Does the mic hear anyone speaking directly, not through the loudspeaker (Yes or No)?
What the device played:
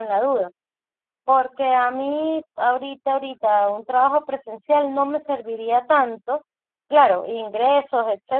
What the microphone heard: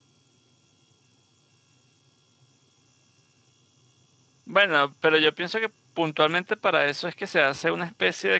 Yes